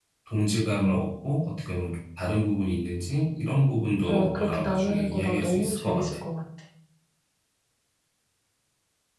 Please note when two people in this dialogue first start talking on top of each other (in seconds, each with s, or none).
4.1 s